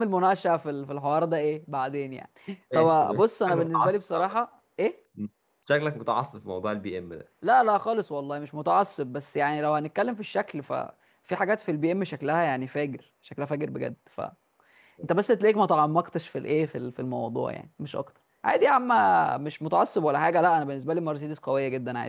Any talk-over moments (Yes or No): Yes